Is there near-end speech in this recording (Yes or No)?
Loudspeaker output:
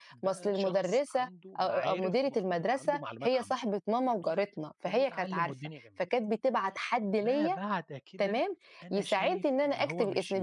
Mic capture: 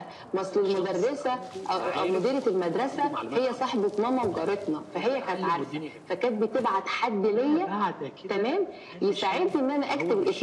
No